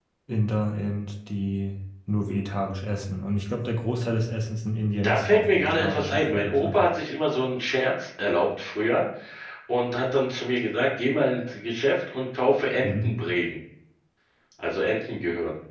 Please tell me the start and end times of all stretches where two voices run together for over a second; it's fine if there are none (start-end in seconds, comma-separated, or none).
5.0-6.8